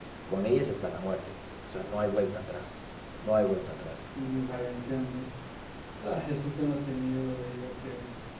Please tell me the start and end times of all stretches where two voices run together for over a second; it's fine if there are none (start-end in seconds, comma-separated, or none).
none